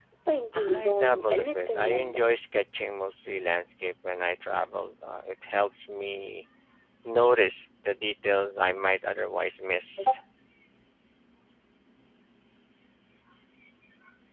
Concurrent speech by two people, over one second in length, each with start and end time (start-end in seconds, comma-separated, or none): 0.5-2.3